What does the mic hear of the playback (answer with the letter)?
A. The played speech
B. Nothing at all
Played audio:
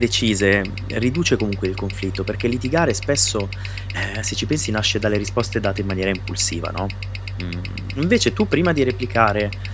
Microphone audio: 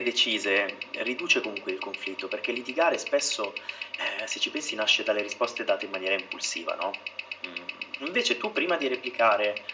A